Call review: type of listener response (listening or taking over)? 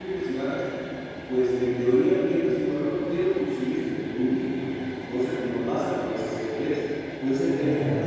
listening